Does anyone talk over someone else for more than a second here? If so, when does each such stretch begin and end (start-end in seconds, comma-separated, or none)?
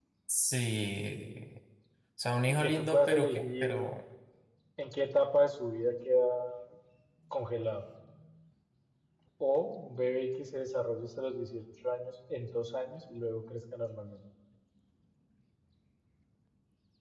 2.5-3.8